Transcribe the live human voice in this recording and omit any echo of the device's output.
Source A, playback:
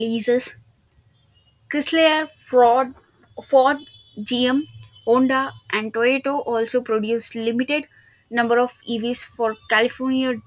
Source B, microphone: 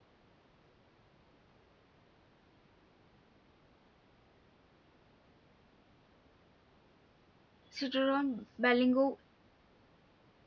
Citroën Berlingo

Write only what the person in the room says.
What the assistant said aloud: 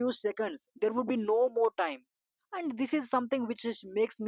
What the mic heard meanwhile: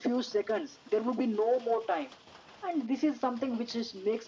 none

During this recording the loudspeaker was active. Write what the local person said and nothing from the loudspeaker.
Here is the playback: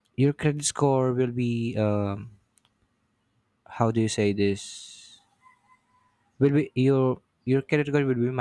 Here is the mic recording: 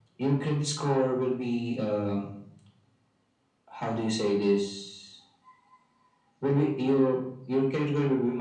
none

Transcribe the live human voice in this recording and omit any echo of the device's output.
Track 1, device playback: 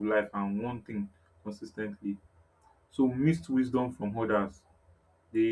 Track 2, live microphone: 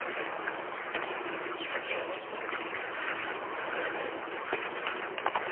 none

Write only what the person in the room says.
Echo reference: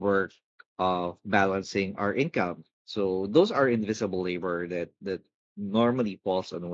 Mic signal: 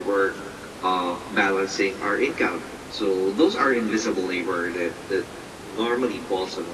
none

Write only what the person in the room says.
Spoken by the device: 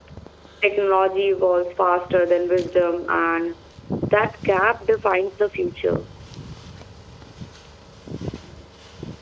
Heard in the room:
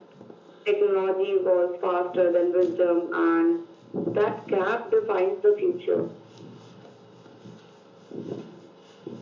none

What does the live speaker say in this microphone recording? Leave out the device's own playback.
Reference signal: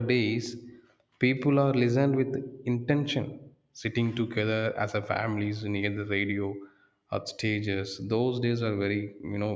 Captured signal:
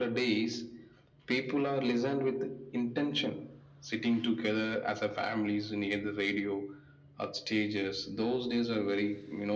none

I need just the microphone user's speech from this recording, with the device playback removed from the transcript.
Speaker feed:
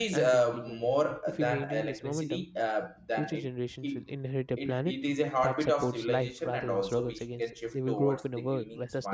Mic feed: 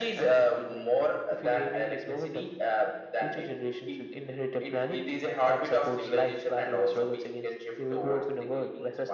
none

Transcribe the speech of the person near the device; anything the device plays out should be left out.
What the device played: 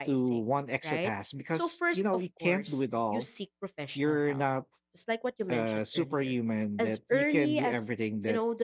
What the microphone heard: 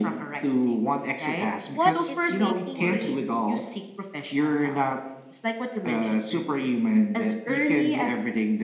What is making me

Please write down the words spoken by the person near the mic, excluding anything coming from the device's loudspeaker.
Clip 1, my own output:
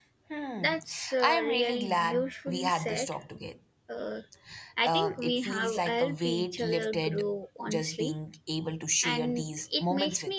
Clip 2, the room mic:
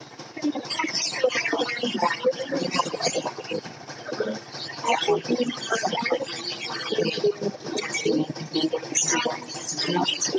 none

